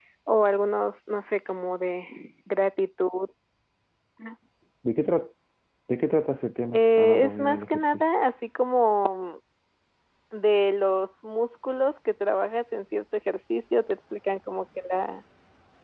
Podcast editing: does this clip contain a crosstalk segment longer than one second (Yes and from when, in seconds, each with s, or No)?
Yes, from 6.7 s